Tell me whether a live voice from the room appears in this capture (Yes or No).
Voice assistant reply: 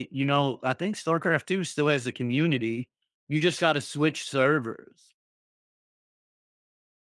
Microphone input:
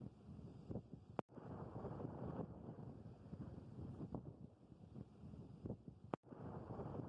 No